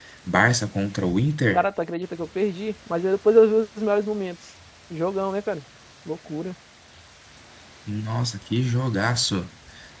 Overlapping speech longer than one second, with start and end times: none

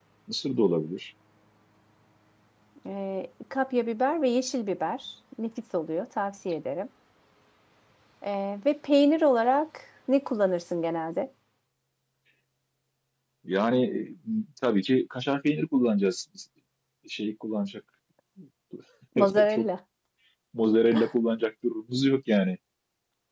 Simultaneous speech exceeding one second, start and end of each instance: none

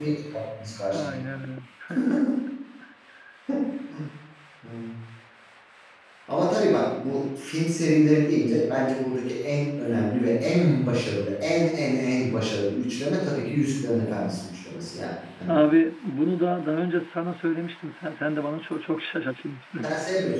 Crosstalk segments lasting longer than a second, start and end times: none

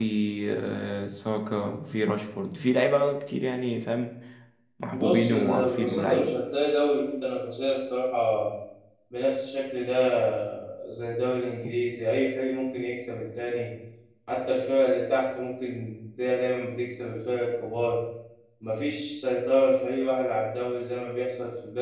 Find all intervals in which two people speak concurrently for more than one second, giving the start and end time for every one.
4.9-6.3

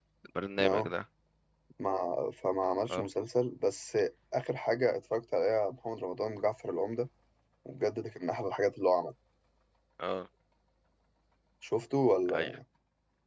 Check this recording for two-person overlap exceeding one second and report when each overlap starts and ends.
none

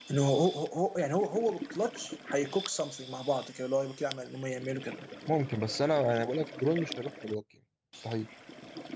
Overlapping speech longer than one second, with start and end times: none

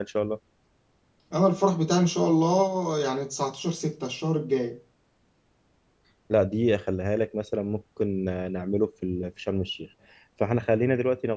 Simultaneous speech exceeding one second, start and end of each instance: none

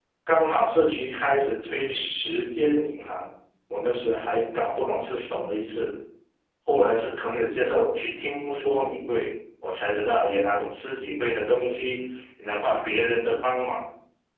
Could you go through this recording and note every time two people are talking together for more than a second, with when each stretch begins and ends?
none

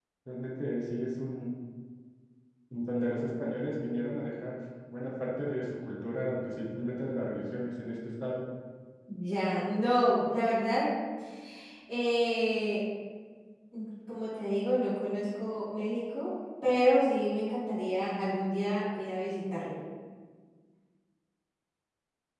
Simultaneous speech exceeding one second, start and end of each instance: none

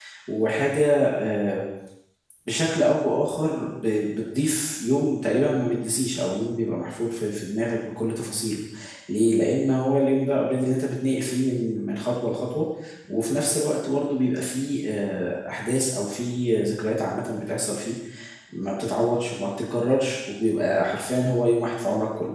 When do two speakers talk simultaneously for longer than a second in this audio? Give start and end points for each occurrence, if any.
none

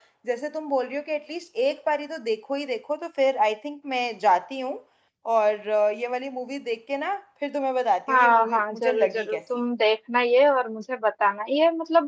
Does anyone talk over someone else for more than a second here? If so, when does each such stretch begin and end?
8.1-9.6

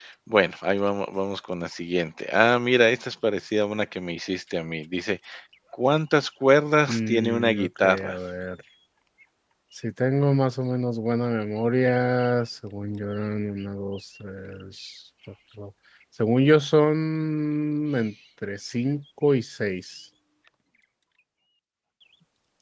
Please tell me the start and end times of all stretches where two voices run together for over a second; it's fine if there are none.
6.9-8.2

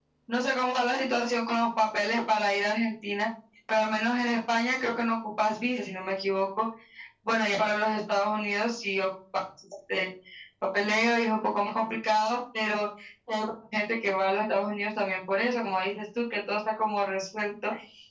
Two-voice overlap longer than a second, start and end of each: none

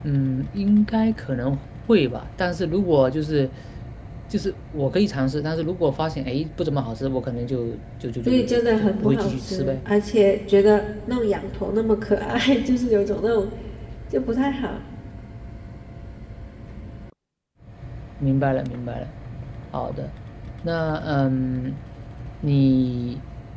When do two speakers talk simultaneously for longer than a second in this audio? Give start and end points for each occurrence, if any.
8.3-9.8

